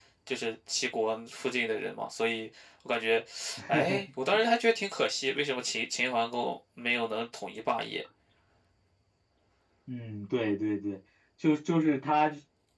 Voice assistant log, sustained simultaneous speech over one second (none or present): none